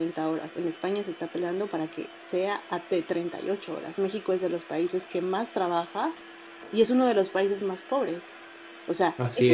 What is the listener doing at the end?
listening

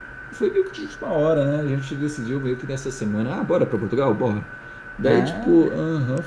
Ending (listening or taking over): listening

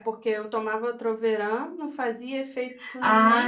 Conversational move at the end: taking over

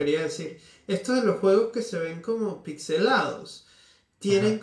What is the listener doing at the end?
listening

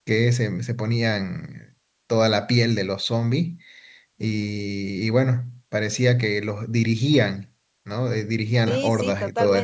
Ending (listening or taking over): taking over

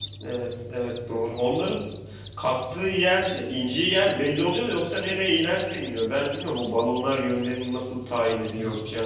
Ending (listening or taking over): listening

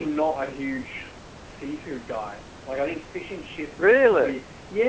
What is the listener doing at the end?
listening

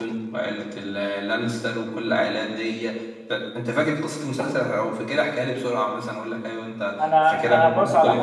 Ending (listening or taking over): taking over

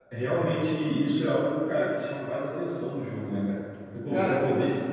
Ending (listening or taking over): listening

